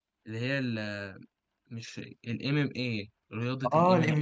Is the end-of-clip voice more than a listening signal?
Yes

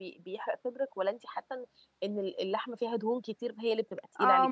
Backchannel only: No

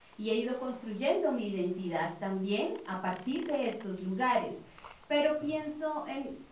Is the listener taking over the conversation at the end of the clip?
No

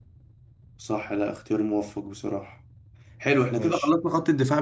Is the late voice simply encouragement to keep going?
Yes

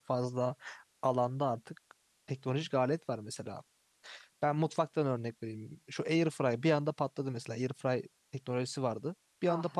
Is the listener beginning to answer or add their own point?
No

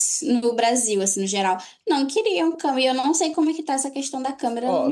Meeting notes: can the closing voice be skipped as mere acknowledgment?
No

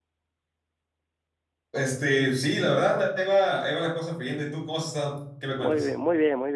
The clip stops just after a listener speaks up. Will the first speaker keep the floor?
No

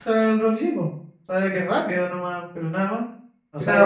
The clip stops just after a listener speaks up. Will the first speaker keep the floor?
No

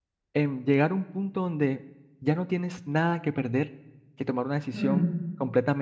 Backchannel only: Yes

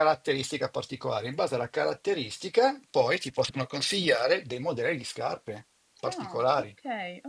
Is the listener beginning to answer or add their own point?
Yes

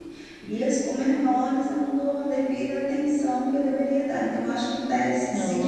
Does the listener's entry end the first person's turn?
Yes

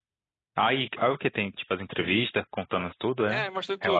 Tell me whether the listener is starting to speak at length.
Yes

